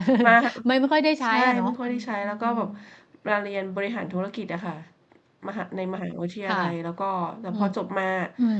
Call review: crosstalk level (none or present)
present